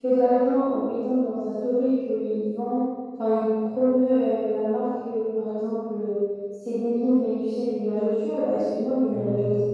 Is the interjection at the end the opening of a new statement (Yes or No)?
No